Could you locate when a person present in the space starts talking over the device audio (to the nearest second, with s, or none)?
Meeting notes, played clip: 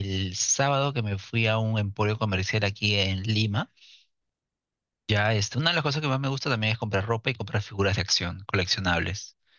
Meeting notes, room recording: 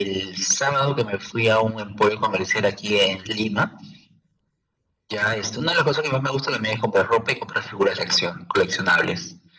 none